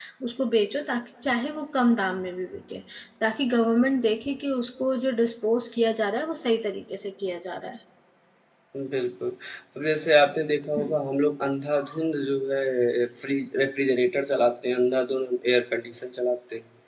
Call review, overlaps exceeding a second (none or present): none